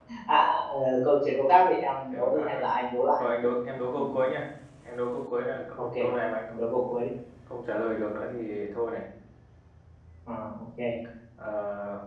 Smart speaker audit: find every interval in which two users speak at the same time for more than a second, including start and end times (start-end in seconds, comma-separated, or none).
none